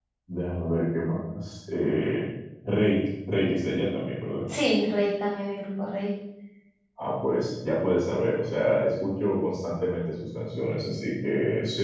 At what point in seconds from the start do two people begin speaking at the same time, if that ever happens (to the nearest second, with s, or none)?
none